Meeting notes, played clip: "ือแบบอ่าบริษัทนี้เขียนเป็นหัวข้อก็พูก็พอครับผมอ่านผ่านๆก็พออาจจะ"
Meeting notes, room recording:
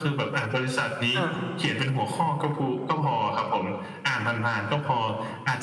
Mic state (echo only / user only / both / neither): both